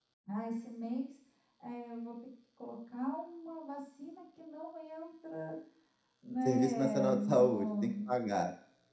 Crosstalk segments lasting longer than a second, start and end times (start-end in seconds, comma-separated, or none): 6.5-7.9